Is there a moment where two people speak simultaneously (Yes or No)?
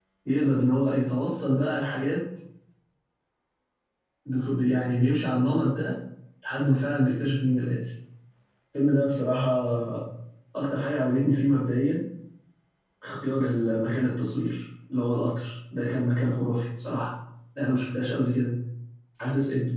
No